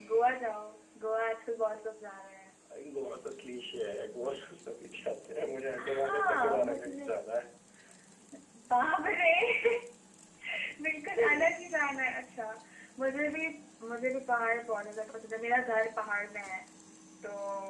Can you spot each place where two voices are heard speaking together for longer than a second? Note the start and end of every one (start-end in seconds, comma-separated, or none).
5.8-7.1